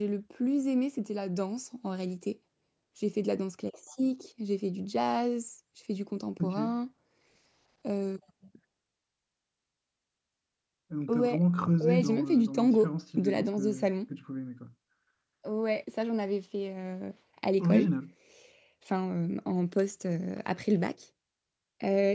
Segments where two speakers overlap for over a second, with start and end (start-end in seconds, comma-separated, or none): 11.8-13.9